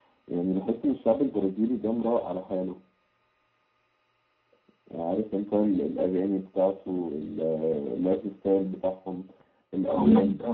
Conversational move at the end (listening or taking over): taking over